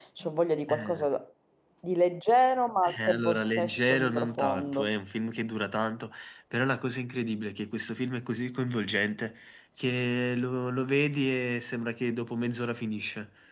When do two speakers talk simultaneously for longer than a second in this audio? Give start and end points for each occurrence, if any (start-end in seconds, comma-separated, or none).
3.1-4.9